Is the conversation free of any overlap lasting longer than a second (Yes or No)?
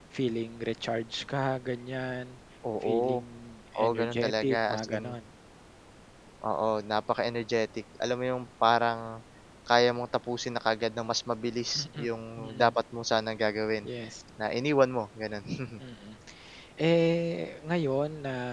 No